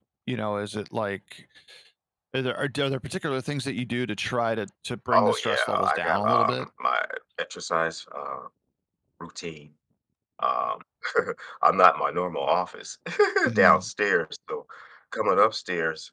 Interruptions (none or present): present